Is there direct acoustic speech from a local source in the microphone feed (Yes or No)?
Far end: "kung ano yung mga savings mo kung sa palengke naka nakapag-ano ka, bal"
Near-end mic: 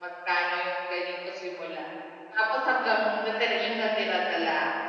Yes